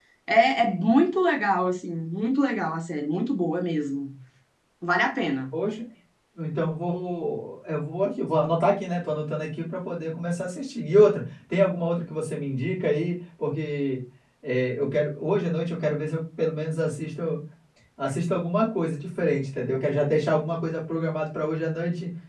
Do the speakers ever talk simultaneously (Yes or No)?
No